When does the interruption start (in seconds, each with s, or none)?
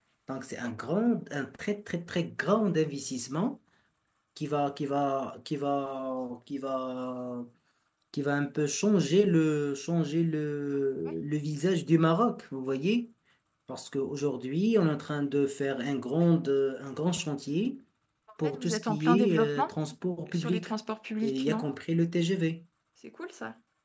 18.4 s